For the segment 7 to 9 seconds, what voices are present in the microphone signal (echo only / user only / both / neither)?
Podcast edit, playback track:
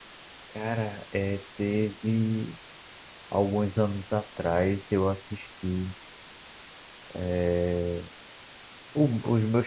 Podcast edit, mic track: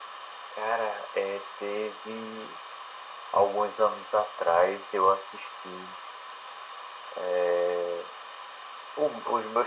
echo only